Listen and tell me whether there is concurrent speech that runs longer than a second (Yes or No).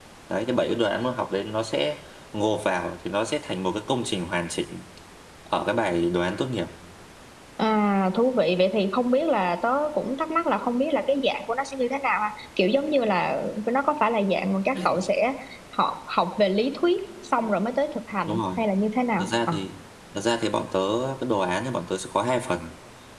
No